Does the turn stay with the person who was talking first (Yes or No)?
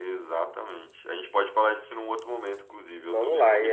No